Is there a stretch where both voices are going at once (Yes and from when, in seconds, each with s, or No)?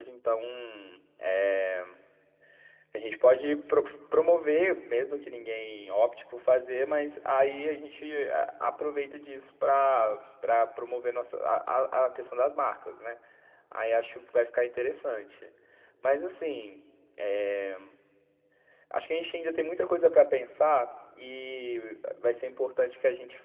No